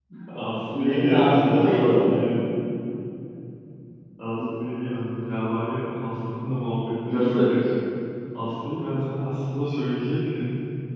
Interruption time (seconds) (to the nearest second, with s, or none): 1 s